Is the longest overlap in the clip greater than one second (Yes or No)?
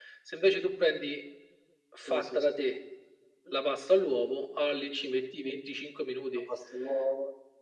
No